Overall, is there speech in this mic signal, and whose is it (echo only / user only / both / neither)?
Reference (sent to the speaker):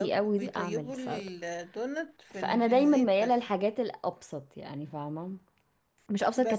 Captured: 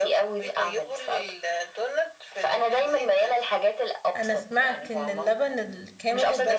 both